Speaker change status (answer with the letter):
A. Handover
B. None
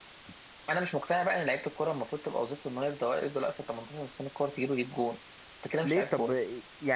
A